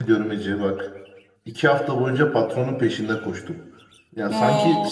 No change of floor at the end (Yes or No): Yes